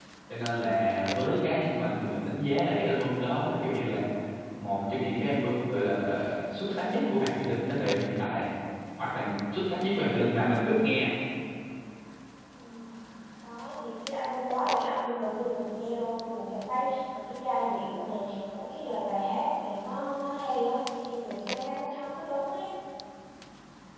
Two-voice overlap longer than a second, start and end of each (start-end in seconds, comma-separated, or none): none